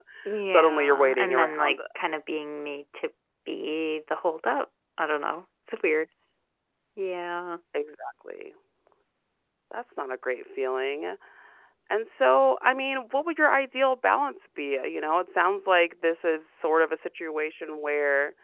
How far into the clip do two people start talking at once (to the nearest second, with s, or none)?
1 s